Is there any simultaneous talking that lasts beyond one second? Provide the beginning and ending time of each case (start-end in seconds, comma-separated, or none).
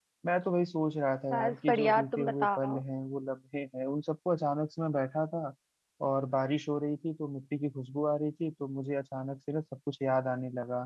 1.3-2.8